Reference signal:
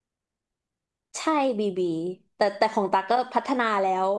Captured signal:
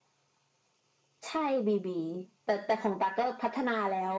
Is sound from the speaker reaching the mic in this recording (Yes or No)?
Yes